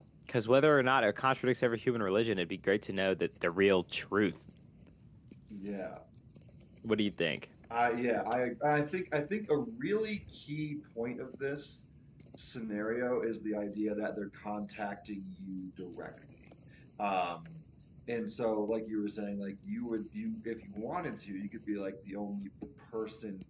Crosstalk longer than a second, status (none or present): none